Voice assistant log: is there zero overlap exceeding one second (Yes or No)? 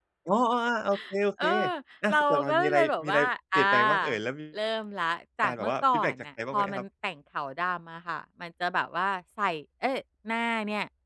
No